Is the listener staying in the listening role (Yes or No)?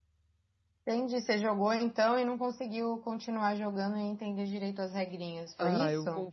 No